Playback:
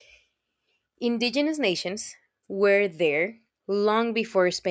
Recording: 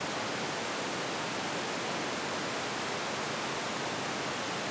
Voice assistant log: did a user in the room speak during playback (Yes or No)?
No